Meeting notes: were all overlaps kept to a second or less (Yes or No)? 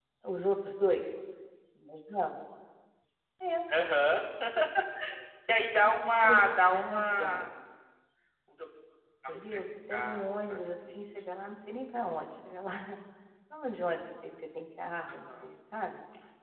No